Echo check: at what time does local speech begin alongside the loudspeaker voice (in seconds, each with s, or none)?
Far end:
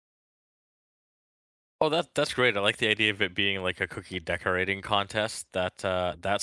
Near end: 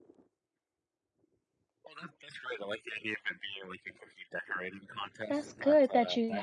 5.3 s